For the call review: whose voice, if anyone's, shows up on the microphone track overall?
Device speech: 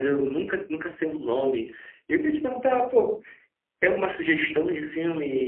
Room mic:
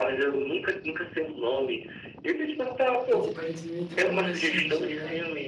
both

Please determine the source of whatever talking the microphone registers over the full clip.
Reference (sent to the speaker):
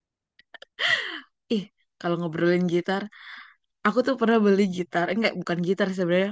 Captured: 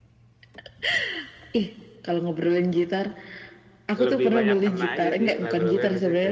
both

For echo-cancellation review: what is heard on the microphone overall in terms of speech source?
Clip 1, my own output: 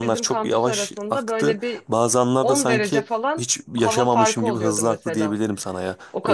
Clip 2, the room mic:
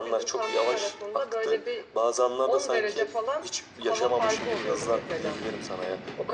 echo only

